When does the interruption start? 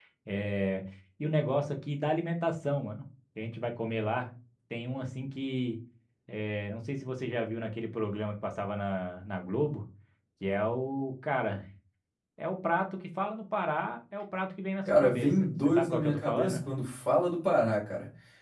15 s

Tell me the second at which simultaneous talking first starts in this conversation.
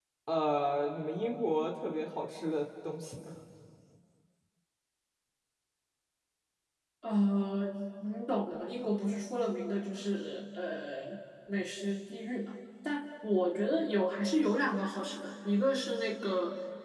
none

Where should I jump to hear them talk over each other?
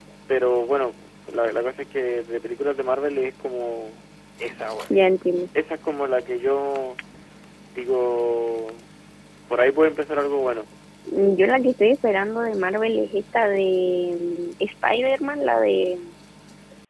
none

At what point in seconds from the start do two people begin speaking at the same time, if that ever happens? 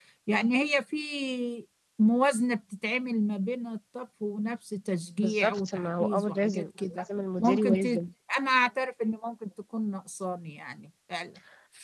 5 s

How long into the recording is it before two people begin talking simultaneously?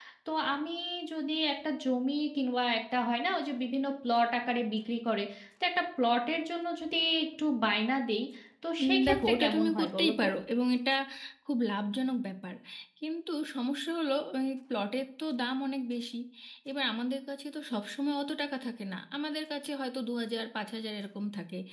9 s

